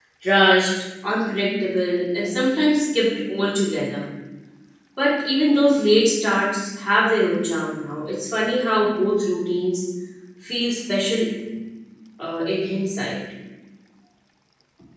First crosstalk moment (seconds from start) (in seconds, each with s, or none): none